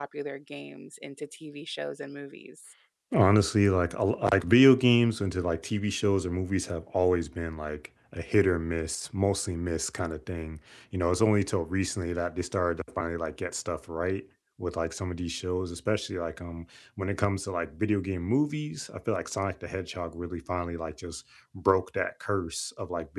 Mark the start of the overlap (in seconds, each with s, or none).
none